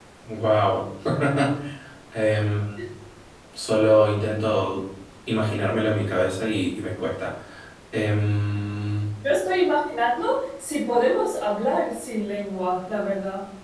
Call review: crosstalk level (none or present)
none